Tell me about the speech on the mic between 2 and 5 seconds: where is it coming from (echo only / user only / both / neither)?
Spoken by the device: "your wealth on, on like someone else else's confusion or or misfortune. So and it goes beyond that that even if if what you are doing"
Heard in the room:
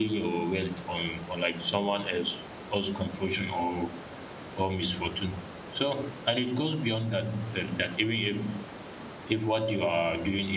echo only